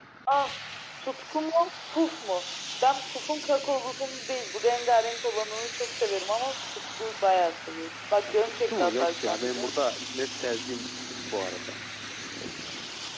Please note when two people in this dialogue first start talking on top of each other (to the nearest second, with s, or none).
8 s